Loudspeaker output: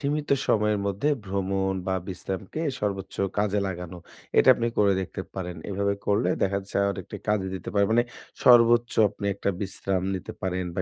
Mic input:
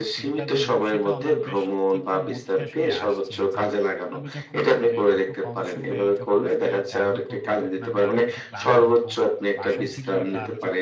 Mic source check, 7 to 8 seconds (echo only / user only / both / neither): both